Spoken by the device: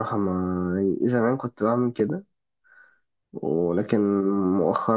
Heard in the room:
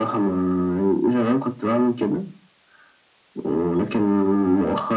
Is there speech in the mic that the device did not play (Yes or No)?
No